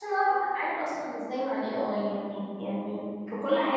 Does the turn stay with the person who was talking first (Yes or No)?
Yes